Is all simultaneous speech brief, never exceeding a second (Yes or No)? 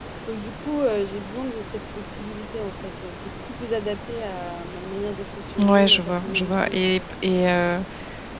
No